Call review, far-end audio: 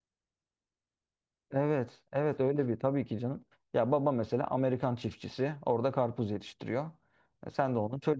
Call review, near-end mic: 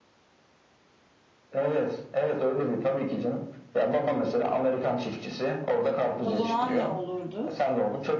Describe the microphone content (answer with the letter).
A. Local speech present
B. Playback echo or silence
A